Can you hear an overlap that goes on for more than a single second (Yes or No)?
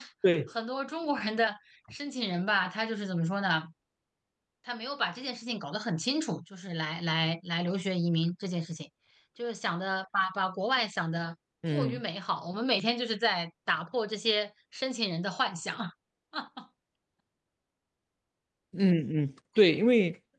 No